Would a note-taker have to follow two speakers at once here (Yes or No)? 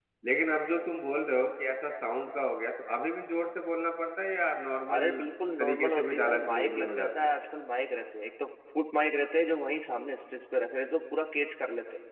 Yes